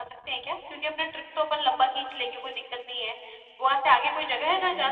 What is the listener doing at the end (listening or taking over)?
taking over